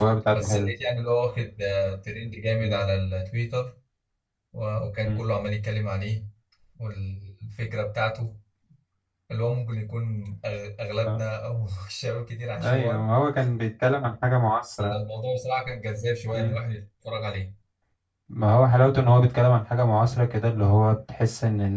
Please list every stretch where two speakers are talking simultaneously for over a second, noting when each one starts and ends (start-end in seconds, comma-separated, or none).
none